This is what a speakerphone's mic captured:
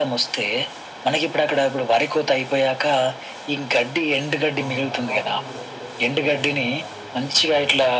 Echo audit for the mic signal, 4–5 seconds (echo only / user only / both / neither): both